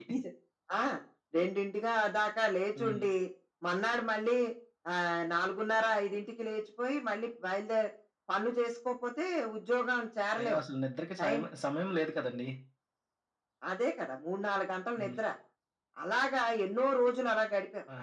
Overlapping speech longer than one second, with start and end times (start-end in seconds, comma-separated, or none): none